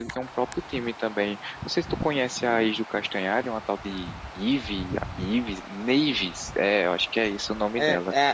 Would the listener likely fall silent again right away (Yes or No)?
No